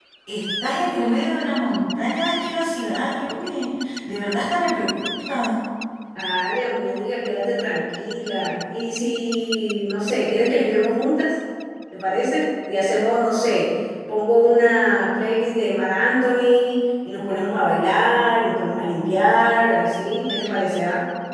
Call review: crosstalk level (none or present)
none